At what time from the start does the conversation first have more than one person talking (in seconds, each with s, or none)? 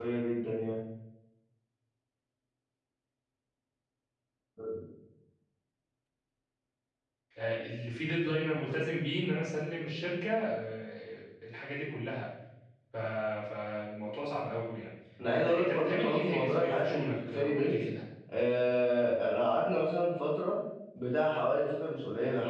15.3 s